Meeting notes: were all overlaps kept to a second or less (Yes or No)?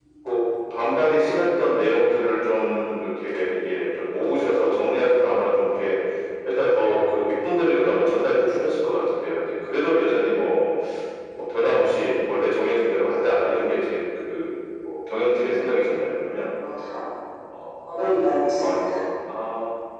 Yes